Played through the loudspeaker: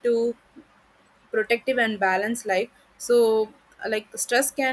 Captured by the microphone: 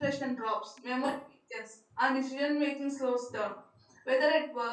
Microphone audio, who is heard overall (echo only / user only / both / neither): user only